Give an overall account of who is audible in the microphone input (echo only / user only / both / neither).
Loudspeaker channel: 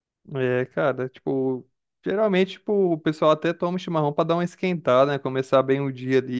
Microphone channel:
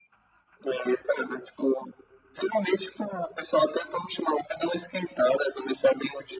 echo only